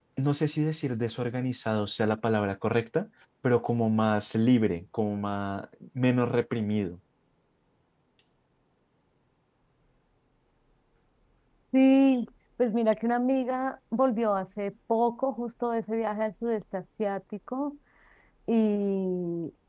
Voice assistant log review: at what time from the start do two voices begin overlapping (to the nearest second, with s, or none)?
none